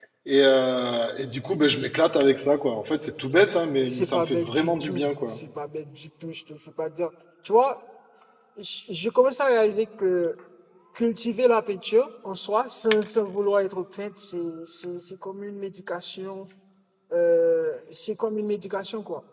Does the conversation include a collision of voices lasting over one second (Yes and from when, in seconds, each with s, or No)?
Yes, from 3.7 s